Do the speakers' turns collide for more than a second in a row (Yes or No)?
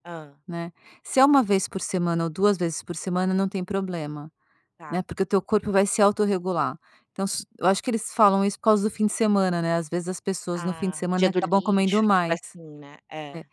Yes